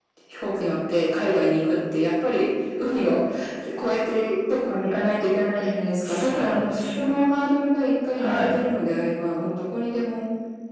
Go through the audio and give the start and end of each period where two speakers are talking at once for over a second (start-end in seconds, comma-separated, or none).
6.0-7.3